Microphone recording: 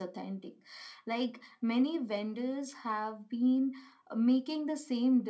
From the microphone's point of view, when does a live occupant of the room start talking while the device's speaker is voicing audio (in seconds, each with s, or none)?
none